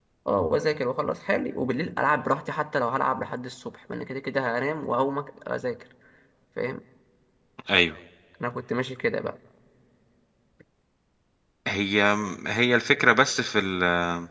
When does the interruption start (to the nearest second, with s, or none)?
none